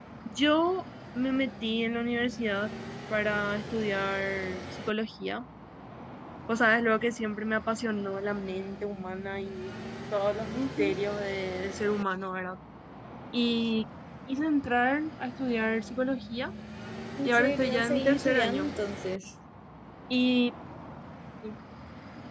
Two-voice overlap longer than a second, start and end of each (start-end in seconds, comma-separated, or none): 17.2-18.7